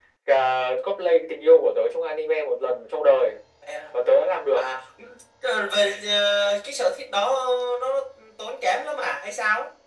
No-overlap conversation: Yes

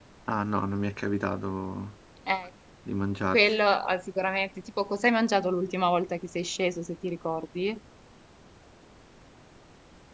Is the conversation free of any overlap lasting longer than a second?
Yes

